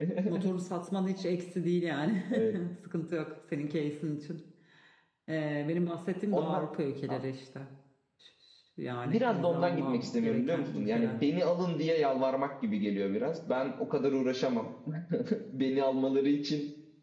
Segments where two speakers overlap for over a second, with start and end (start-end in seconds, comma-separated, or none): 9.0-11.2